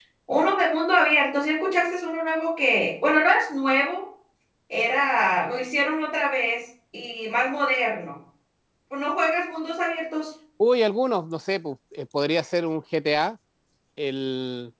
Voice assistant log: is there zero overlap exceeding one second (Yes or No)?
Yes